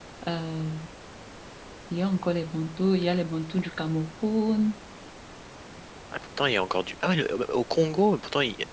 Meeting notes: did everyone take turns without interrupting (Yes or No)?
Yes